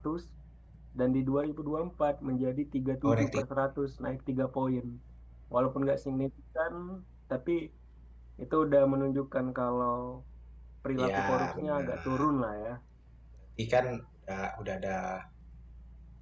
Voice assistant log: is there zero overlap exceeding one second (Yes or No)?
No